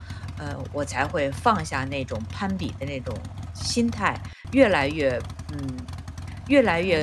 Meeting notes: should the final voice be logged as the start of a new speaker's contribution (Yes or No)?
No